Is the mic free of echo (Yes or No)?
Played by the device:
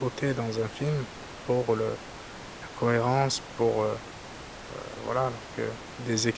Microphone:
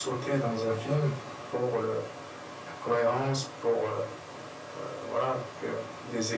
No